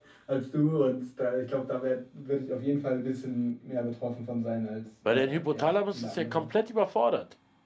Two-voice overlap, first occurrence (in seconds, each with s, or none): 5.1 s